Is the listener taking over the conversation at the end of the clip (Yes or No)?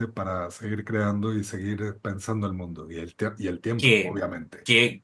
Yes